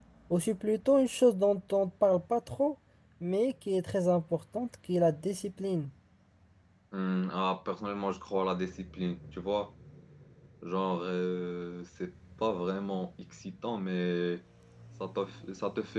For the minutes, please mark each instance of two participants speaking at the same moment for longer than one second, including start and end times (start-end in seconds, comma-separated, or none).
none